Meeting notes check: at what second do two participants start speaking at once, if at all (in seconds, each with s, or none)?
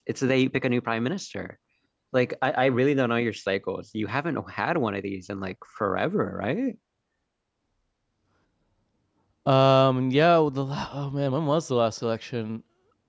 none